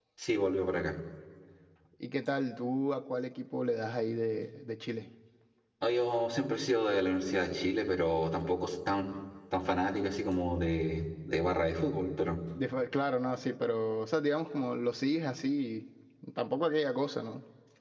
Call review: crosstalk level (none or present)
none